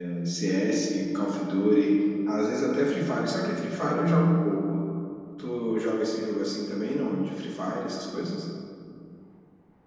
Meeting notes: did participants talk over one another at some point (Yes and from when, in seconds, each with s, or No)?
No